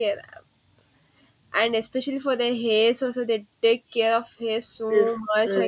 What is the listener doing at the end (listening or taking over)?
taking over